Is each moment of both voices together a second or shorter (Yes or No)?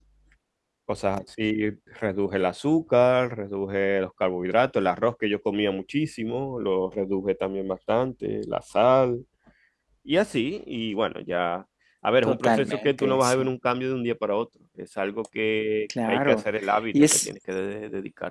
No